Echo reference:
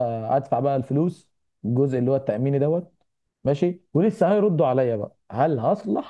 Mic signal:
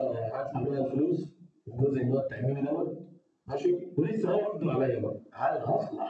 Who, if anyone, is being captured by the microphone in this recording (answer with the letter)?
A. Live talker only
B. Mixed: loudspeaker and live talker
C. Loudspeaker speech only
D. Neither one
C